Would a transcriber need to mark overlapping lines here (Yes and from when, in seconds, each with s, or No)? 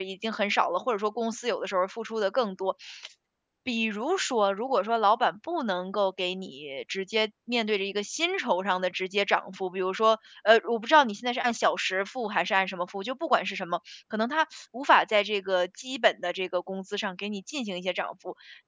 No